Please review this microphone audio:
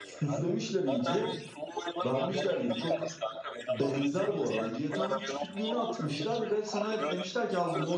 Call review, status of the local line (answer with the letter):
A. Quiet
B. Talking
B